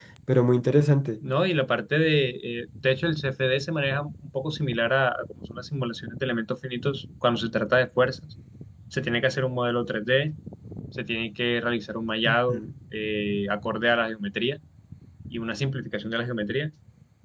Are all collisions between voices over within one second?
Yes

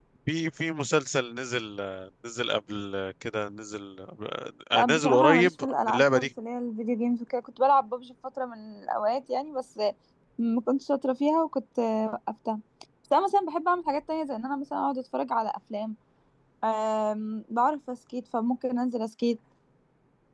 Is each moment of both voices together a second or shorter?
No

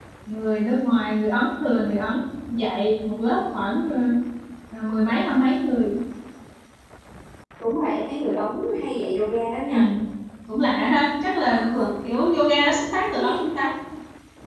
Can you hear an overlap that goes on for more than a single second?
Yes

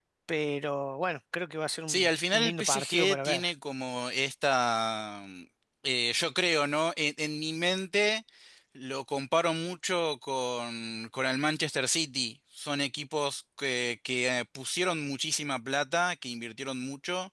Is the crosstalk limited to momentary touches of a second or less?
No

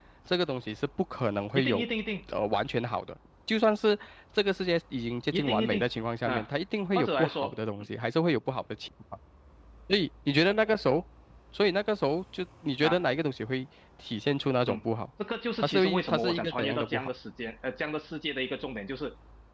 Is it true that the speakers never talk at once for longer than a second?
No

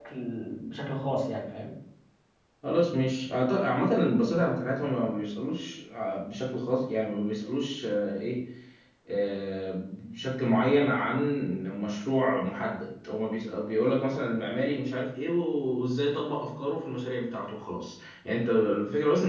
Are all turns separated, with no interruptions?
Yes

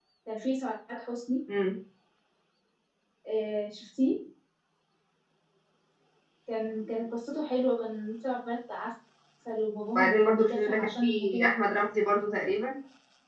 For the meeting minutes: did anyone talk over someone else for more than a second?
Yes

